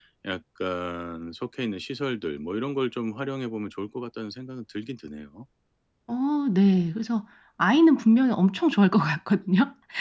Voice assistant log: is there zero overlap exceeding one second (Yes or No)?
Yes